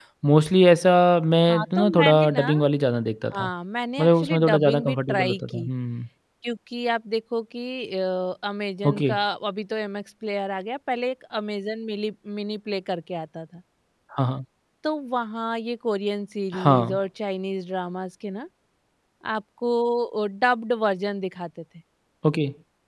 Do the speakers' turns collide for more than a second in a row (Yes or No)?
Yes